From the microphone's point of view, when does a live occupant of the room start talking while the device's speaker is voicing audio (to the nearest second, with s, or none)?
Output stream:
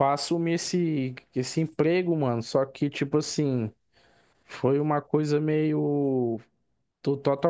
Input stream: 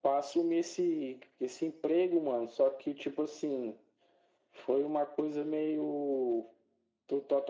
none